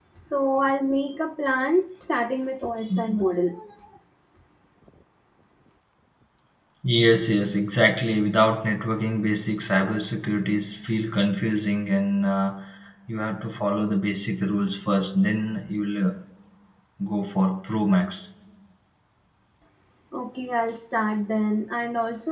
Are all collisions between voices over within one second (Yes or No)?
Yes